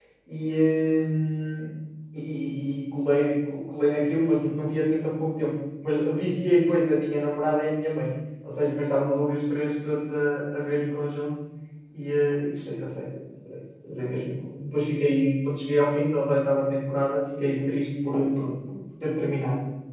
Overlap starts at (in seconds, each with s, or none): none